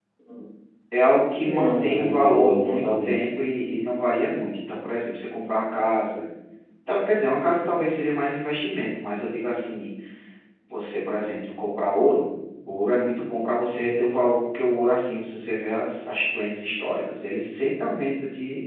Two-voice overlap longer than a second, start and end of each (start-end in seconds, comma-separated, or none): 1.3-3.3